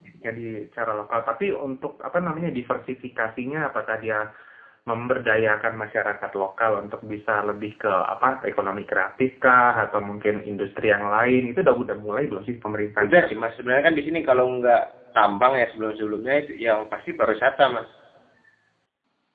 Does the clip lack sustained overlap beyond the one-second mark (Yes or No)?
Yes